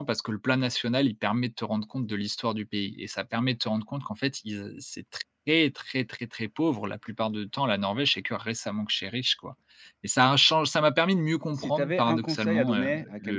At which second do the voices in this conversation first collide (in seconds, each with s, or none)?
11.6 s